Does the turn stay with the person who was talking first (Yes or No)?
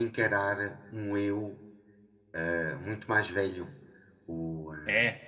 Yes